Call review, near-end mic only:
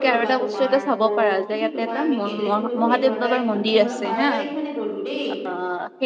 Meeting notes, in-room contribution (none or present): present